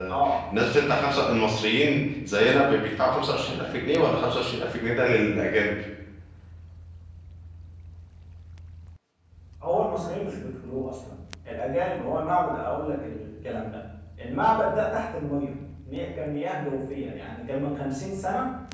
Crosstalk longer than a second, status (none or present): none